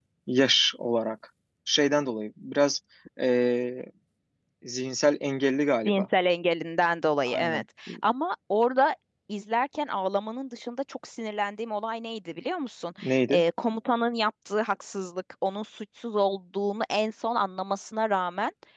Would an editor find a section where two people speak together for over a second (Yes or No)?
No